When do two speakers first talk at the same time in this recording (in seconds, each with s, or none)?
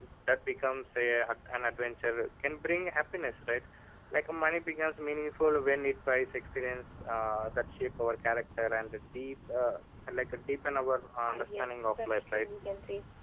11.3 s